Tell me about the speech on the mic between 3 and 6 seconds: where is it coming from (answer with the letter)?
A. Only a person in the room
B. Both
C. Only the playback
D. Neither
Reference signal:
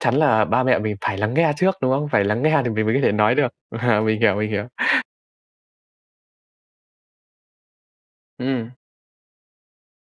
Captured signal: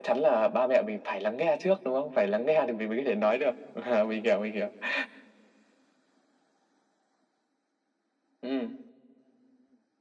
C